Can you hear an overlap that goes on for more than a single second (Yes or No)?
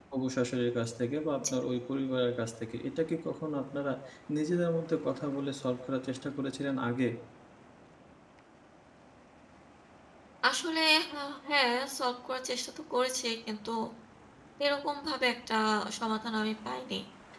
No